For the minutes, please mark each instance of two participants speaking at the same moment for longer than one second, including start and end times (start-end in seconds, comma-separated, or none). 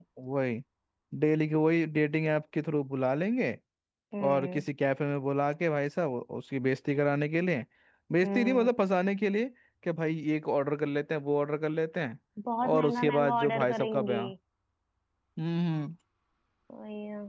12.6-14.2